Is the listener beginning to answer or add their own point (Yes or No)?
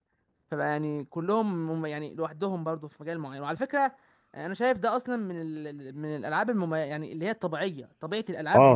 Yes